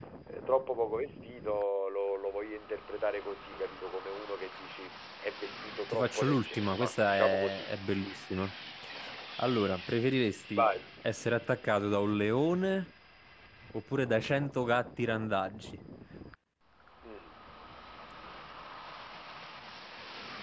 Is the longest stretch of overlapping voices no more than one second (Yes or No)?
No